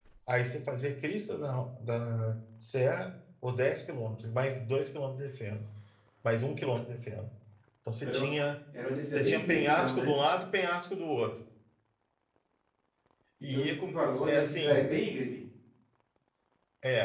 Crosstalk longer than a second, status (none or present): present